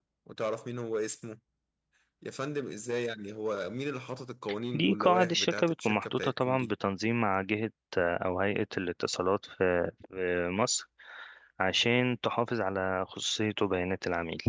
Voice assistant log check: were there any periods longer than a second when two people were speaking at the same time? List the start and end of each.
4.7-6.7

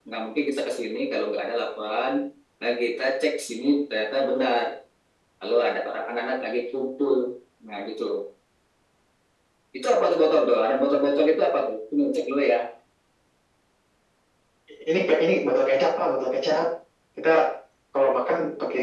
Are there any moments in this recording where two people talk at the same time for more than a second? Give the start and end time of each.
none

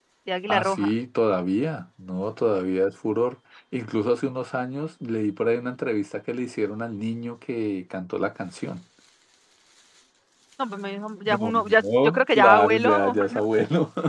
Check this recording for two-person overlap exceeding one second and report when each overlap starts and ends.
11.2-13.2

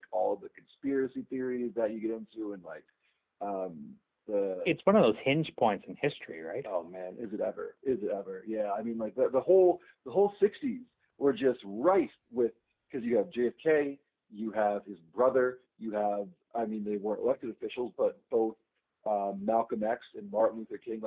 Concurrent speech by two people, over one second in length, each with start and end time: none

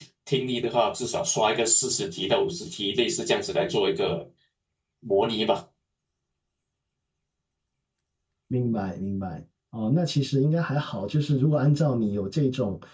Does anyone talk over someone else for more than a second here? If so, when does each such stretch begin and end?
none

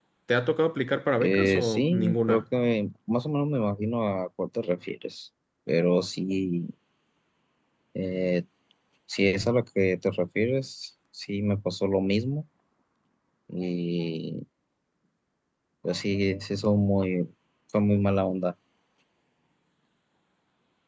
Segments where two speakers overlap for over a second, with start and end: 1.2-2.4

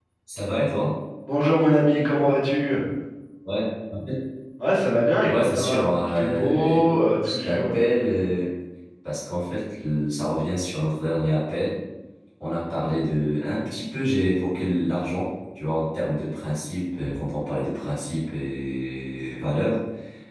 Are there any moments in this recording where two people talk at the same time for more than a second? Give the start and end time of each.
5.3-7.8

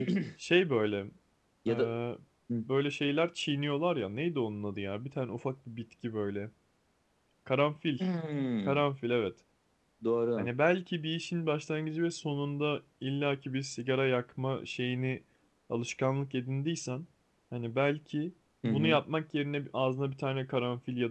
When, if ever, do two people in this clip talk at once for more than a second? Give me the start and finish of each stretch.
none

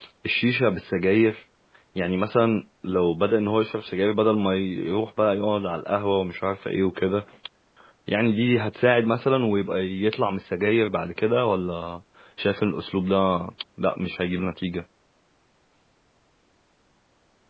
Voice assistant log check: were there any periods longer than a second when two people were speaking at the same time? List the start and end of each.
none

